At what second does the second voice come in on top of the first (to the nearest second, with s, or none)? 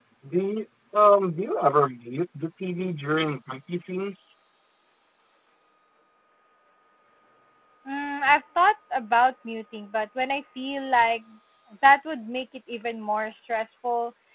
none